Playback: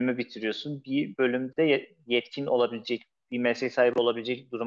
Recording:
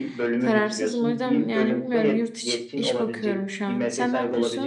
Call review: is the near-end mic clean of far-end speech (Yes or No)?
No